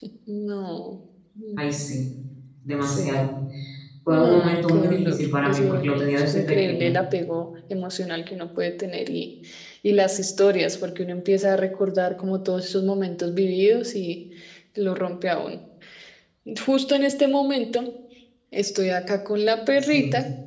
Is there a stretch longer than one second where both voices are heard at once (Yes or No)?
Yes